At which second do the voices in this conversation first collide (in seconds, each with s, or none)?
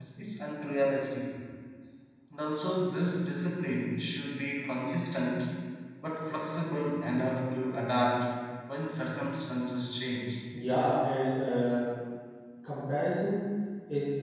none